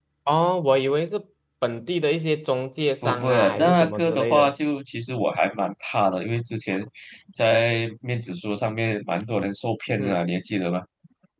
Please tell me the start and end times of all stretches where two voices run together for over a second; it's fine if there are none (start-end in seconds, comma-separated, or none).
3.0-4.5